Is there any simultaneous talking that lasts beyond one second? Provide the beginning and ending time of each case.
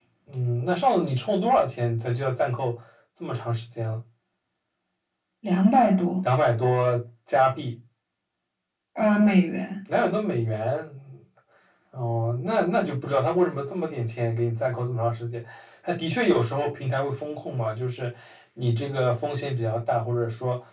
none

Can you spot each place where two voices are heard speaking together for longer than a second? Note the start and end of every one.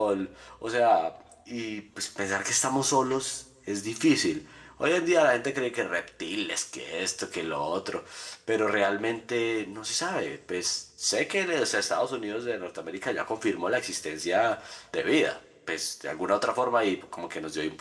none

